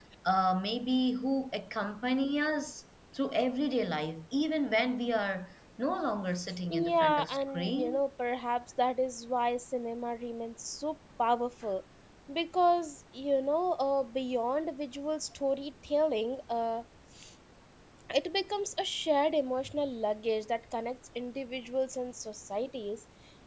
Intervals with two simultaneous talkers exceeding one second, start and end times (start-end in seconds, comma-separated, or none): 6.7-8.0